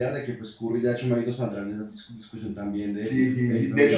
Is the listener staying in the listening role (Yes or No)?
No